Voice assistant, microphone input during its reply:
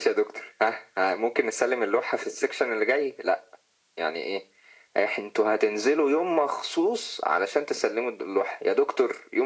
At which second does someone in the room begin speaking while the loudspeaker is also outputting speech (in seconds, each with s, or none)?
none